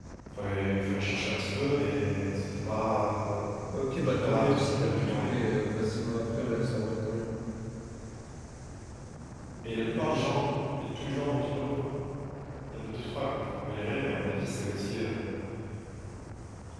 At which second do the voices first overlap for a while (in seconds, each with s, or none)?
4.0 s